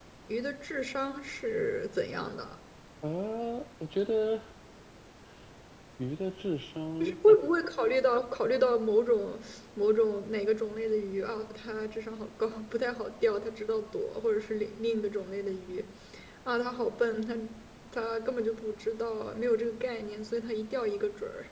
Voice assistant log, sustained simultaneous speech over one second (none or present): none